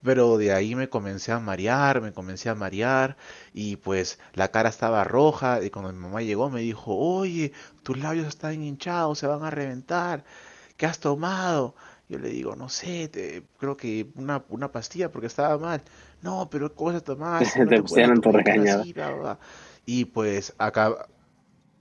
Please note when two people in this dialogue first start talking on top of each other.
17 s

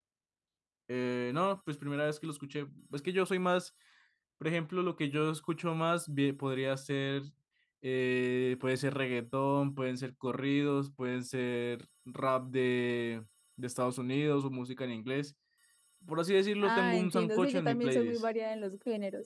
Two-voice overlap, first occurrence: 17 s

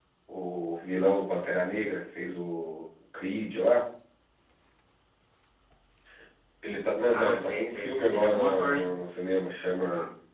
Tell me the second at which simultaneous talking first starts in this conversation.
7 s

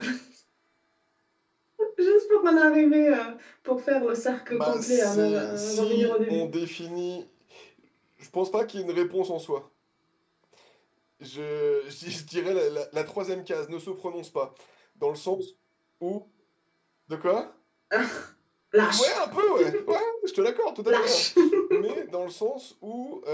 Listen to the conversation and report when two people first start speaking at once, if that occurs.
5 s

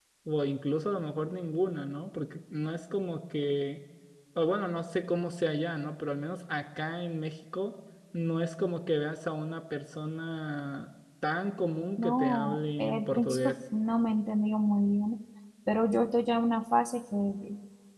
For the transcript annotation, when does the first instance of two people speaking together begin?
12 s

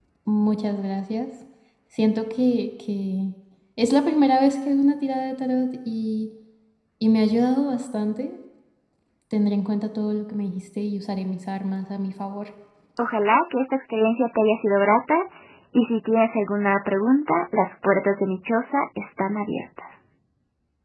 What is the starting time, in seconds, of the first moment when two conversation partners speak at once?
none

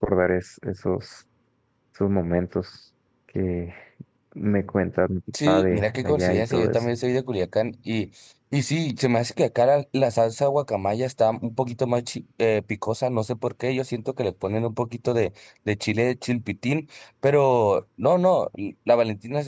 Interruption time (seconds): 5 s

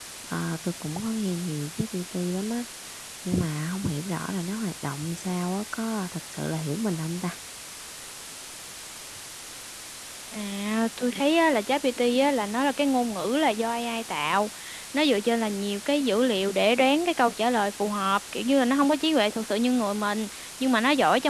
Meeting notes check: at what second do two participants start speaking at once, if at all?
none

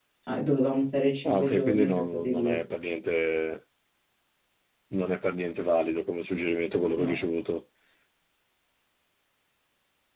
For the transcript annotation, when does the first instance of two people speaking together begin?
1 s

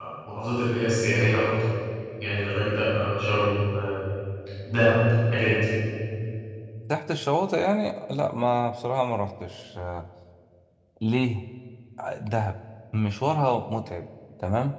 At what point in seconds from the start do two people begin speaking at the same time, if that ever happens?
none

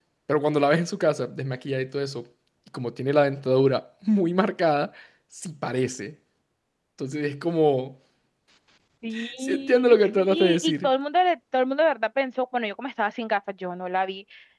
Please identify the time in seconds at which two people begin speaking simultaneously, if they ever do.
9 s

